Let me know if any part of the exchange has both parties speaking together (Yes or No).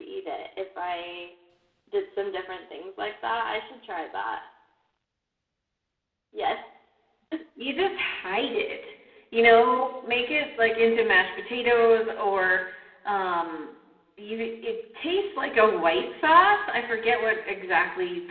No